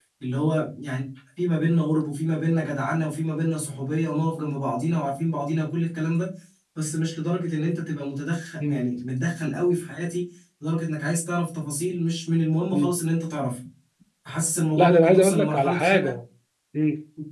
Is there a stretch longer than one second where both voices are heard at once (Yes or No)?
Yes